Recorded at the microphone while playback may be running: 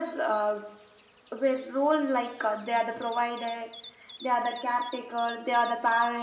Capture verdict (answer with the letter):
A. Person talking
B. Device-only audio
B